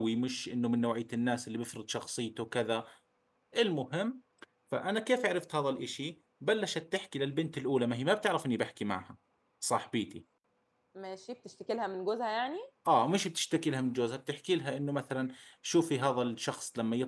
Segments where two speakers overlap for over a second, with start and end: none

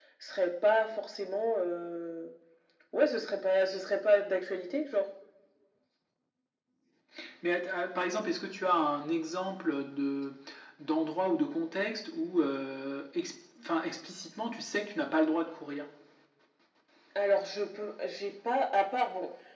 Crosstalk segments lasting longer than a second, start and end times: none

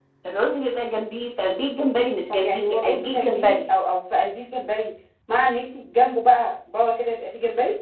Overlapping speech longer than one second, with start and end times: 2.3-3.6

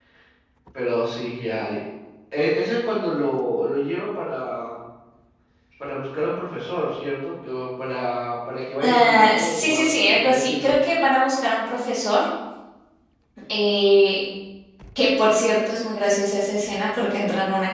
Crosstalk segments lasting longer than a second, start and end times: 8.8-10.7

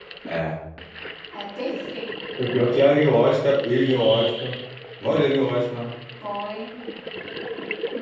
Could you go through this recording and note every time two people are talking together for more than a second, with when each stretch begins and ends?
none

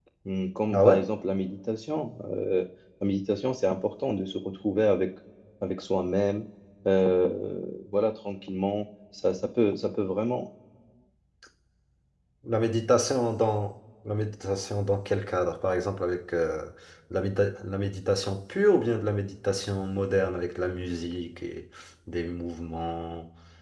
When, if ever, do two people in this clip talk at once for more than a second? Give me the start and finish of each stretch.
none

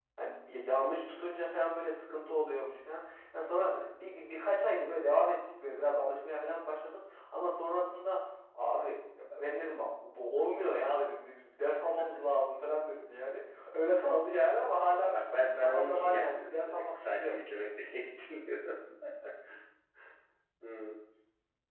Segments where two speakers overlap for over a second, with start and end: 15.0-17.4

